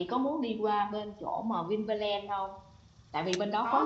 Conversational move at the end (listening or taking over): listening